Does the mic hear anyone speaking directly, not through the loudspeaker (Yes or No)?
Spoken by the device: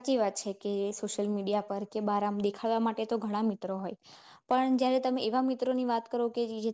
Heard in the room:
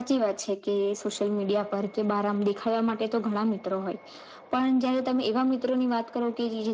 No